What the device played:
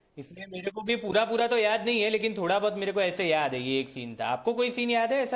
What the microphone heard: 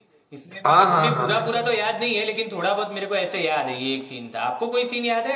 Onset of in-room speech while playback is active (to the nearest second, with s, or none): 1 s